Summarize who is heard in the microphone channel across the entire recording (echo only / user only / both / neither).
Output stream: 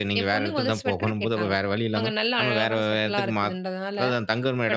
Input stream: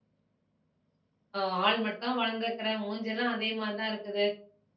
user only